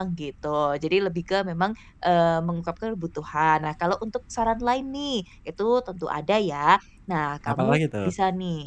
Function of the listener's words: listening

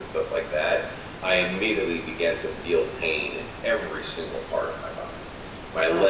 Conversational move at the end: listening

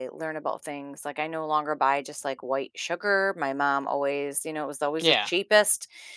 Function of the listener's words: listening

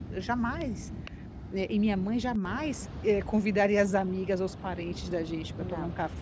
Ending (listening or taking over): listening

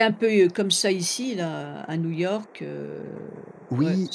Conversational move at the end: taking over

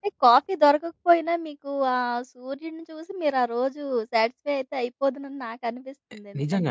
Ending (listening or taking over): taking over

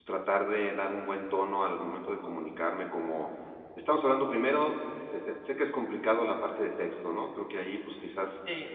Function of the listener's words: listening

